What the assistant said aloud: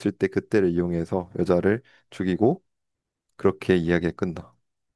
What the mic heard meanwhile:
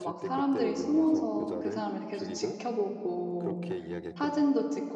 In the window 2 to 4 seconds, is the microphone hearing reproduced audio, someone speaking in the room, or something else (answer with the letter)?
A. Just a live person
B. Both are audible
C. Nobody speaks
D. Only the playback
B